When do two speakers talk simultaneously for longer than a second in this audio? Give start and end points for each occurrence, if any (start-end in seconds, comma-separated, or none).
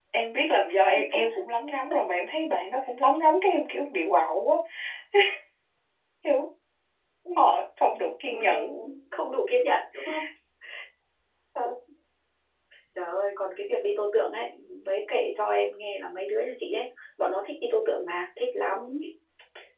none